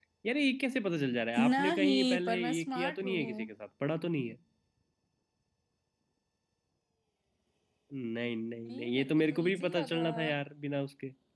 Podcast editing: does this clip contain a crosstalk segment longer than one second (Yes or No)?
Yes